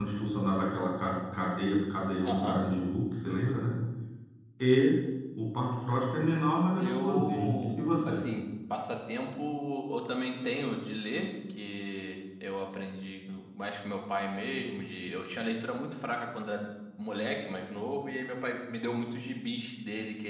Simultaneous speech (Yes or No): Yes